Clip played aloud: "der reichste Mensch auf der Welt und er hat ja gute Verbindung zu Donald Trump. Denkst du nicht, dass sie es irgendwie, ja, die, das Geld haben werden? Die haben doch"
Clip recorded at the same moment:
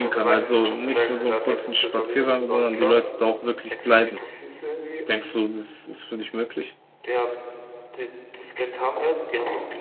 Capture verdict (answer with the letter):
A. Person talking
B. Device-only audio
A